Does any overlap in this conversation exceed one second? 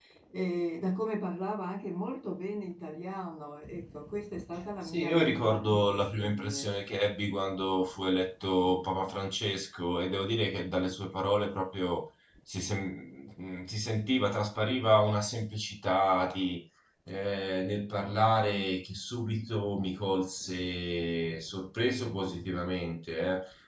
Yes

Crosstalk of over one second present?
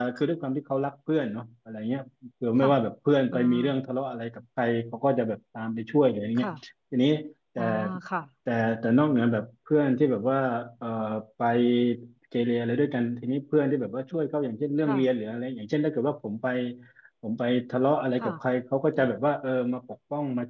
No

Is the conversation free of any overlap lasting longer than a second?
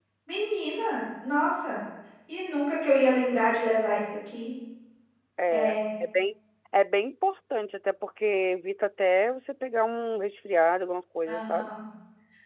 Yes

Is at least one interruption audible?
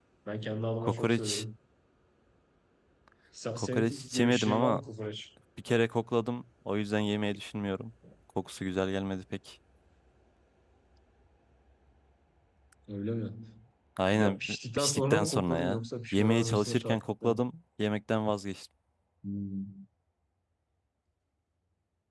Yes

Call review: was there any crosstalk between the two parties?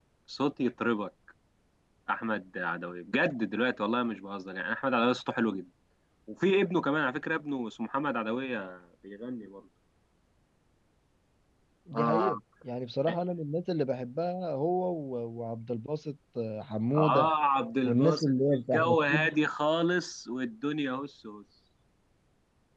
Yes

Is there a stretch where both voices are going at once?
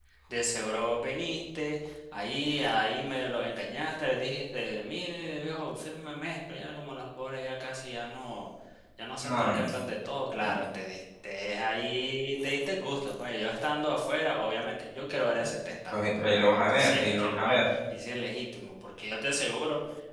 Yes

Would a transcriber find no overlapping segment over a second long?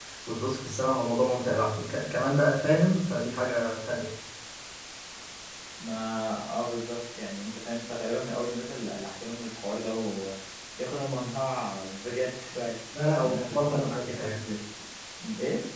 No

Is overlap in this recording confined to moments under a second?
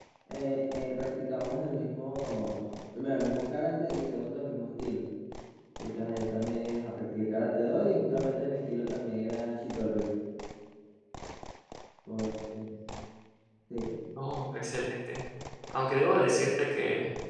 Yes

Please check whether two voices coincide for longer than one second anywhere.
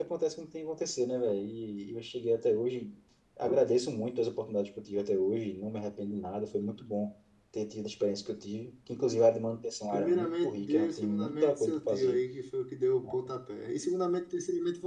Yes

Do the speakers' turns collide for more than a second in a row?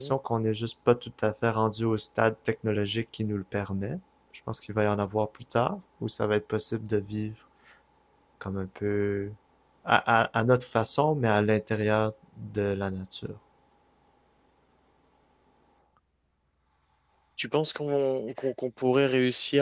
No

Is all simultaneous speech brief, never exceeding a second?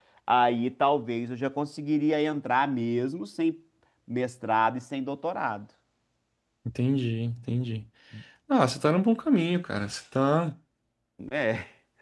Yes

